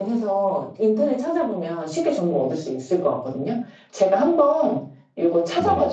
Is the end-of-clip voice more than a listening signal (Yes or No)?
No